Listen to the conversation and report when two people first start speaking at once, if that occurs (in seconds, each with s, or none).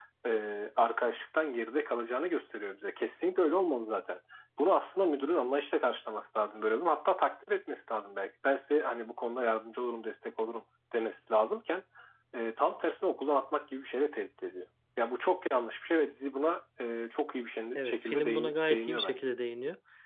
17.8 s